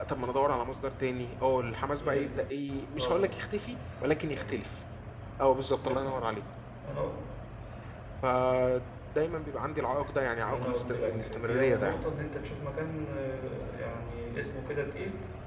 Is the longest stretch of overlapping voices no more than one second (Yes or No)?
No